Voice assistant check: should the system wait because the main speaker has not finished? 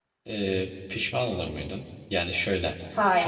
Yes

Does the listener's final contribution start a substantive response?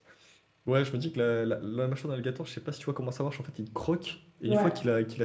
No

